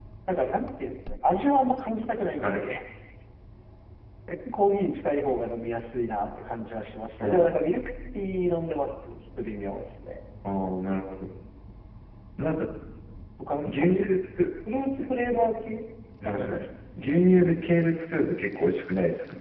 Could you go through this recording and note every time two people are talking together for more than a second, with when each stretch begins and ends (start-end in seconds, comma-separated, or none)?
none